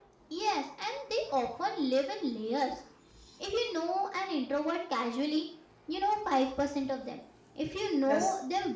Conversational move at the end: listening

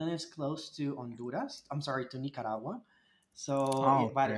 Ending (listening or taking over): listening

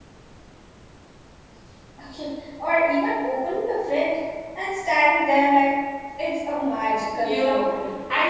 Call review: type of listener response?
taking over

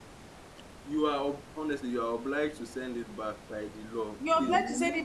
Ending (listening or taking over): taking over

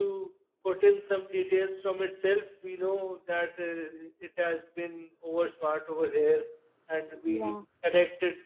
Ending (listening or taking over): listening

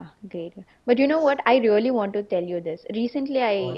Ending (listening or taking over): listening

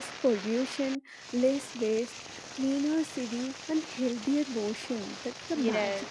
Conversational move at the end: taking over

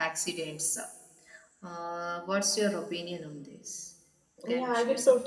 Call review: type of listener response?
taking over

